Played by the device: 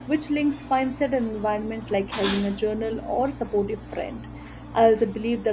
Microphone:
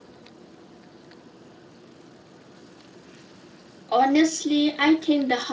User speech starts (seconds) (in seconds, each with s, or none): 3.9 s